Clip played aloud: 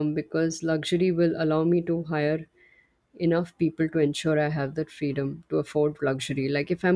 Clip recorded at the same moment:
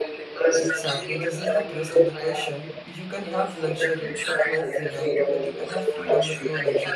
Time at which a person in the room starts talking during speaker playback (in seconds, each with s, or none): 0.5 s